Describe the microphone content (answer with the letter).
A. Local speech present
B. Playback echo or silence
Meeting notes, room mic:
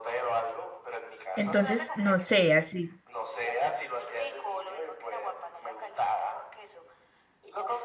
A